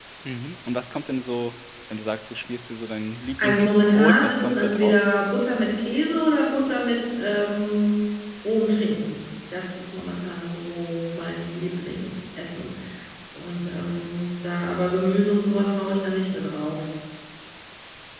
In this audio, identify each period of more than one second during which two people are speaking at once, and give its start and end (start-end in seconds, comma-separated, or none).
3.4-5.0